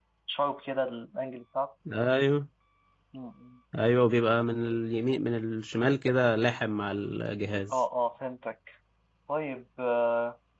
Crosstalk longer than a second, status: none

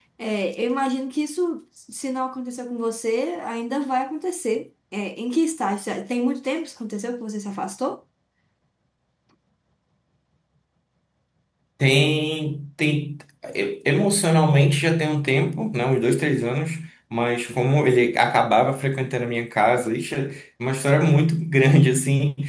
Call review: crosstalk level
none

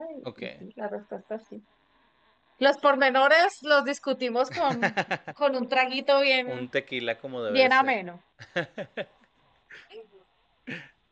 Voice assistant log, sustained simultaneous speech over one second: none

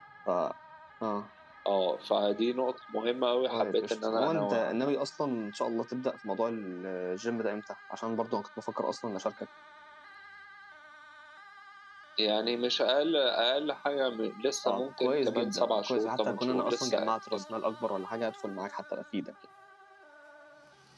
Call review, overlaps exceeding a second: present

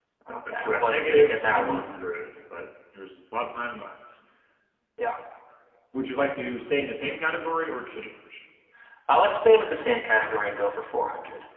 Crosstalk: present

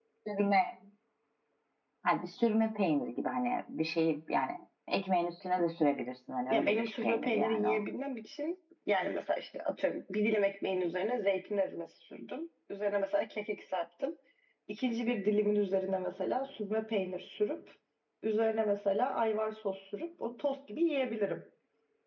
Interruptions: present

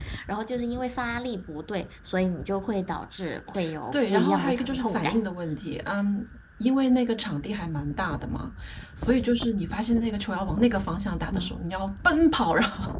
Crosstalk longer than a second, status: present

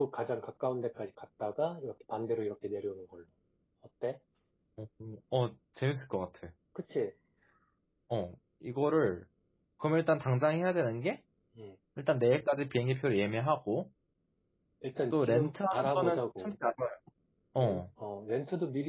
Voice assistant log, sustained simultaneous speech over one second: present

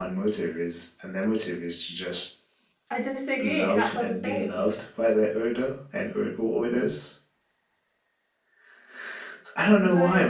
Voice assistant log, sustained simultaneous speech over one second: present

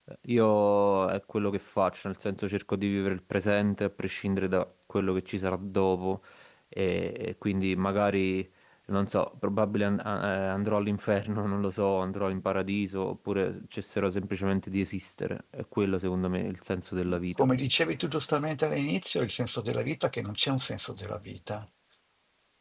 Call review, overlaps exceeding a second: none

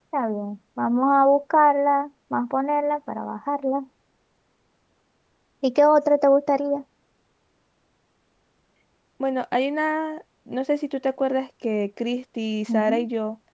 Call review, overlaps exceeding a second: none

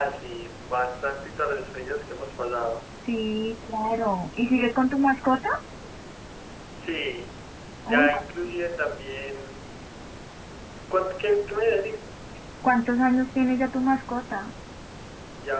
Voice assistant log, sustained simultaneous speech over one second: none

